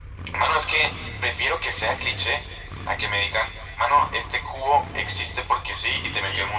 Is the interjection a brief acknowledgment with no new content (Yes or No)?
No